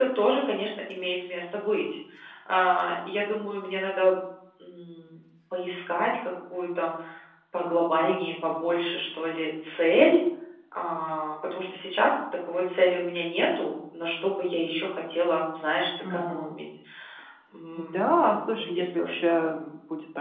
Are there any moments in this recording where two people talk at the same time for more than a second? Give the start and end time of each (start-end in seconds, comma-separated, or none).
17.9-19.5